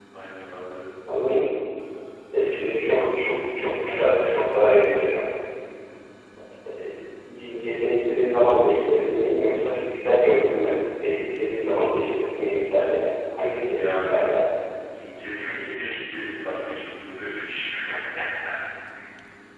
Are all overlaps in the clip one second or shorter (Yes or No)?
Yes